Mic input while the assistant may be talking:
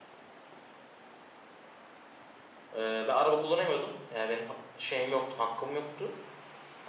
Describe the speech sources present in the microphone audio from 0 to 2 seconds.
neither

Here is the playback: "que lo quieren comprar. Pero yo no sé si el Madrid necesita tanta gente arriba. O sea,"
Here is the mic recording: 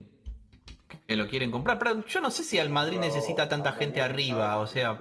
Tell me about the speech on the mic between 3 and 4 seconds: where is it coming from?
both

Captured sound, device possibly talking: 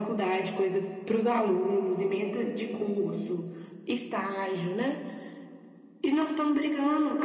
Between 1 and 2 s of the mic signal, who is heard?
echo only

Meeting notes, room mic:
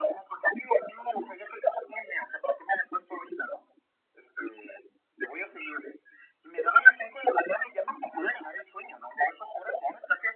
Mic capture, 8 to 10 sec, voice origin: echo only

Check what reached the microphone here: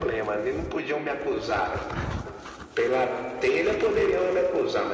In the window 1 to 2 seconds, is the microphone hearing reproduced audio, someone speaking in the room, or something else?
echo only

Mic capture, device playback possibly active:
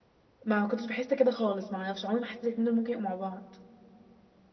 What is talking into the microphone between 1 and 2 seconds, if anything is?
user only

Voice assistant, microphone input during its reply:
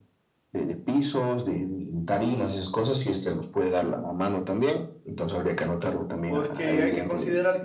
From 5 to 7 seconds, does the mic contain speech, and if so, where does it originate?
both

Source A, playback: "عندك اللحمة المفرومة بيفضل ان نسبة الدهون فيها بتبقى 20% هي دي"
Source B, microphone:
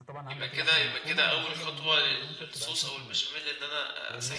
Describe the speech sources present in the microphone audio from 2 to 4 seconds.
both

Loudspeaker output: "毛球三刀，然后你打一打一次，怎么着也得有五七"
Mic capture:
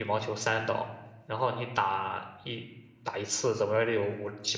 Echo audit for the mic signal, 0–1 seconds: echo only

